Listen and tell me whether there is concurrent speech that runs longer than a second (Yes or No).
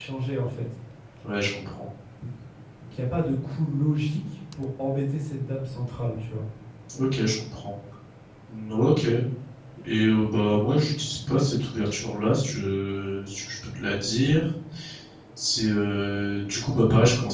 No